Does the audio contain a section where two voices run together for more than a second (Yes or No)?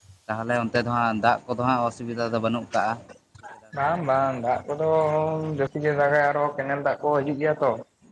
No